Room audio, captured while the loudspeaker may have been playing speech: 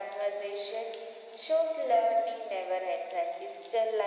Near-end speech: none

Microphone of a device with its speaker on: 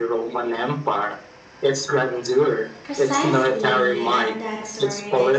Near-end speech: present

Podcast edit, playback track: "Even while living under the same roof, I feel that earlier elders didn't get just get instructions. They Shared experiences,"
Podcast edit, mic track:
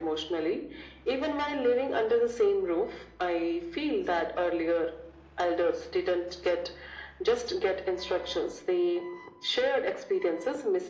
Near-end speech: none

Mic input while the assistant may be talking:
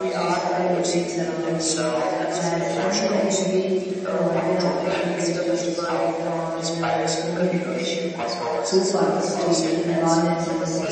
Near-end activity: present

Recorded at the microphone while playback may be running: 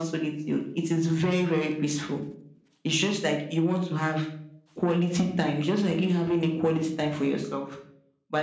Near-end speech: none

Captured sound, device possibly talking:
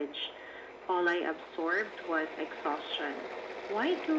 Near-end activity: none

